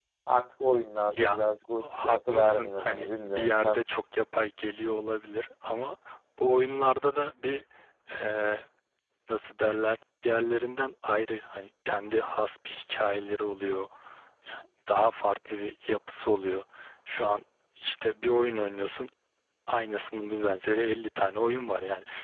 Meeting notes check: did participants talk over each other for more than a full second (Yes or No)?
Yes